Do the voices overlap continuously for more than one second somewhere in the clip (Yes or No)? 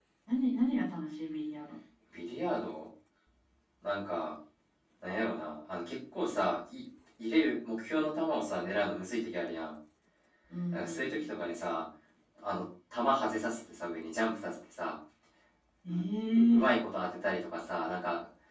No